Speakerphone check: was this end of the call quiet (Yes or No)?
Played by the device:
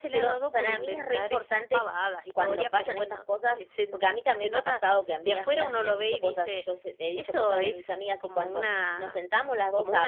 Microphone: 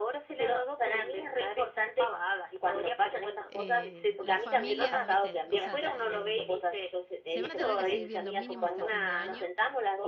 No